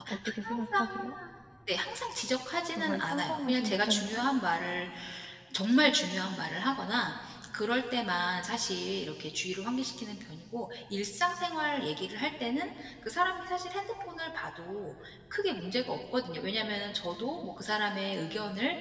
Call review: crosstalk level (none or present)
present